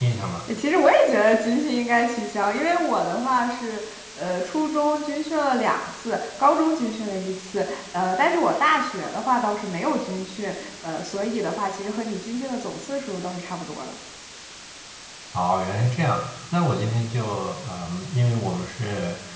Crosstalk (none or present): none